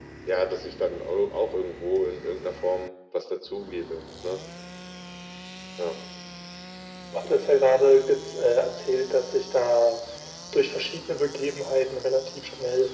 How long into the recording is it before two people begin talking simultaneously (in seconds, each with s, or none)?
none